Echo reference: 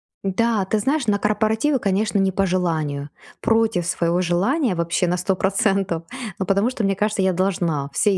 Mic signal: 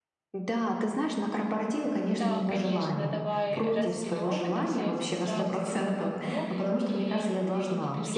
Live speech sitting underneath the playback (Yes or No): Yes